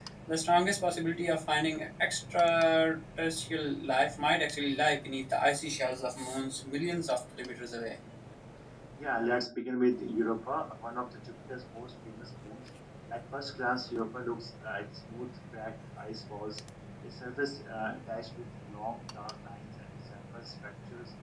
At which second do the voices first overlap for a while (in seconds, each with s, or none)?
none